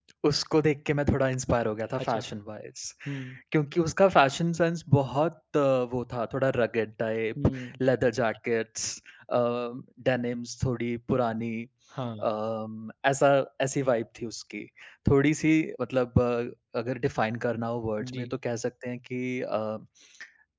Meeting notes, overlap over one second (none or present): none